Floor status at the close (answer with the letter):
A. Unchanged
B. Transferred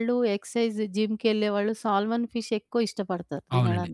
B